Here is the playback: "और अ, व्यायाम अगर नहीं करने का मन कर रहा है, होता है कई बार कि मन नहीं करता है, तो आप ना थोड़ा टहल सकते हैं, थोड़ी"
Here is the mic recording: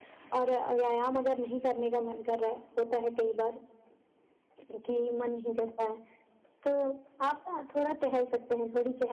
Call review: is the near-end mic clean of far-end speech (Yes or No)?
No